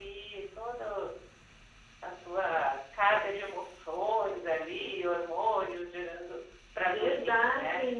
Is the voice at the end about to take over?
Yes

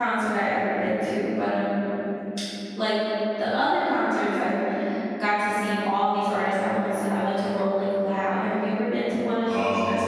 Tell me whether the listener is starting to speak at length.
Yes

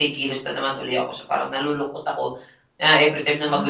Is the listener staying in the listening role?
Yes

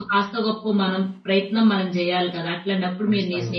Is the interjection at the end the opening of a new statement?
No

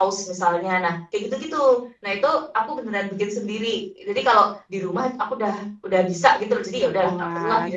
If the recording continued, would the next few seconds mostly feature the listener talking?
Yes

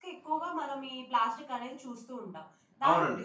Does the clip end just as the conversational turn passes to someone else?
No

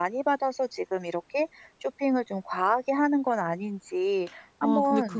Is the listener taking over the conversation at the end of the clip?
Yes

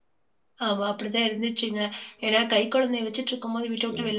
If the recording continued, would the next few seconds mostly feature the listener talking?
No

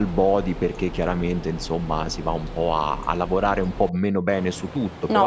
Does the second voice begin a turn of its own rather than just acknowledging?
Yes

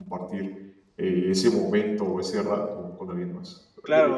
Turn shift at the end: Yes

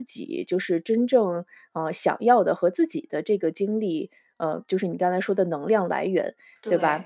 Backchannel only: Yes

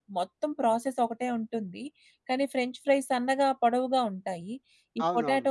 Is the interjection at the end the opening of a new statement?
No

